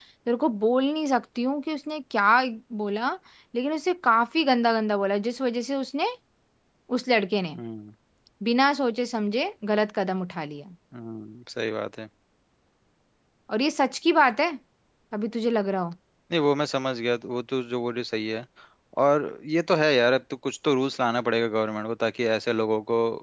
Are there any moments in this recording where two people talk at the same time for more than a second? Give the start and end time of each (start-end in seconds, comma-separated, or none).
none